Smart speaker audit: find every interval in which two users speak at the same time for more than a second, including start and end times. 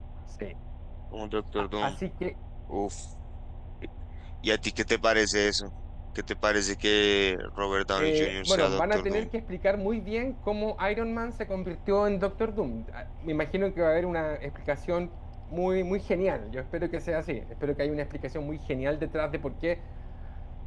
8.0-9.3

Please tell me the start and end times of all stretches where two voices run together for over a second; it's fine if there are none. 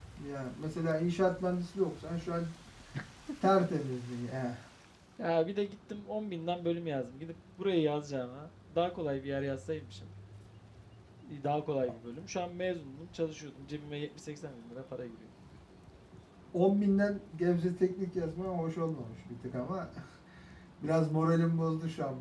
none

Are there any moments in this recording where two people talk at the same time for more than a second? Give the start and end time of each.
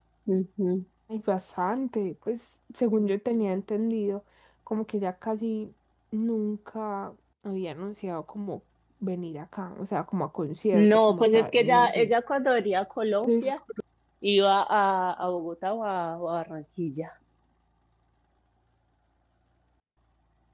10.7-12.1

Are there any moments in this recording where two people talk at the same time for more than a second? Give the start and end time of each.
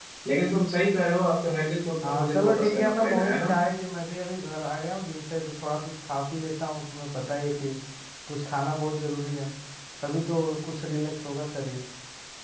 2.0-3.5

